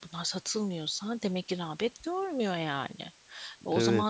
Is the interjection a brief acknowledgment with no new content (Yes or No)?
Yes